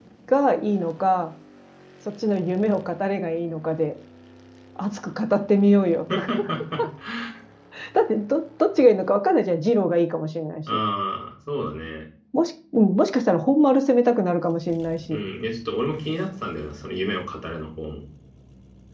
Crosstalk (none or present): none